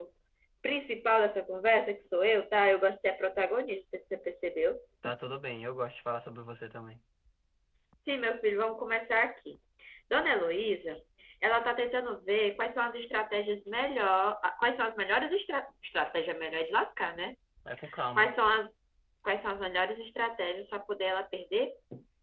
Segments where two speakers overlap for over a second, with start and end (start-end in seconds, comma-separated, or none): none